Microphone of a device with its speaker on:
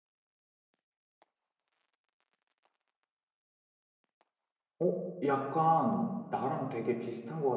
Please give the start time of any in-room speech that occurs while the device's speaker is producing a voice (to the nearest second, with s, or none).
5 s